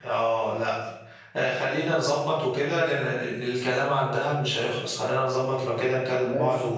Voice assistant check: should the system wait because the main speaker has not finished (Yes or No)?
Yes